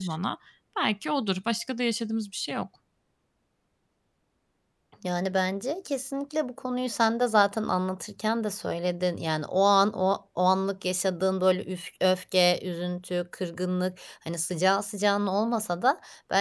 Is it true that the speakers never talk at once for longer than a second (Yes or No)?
Yes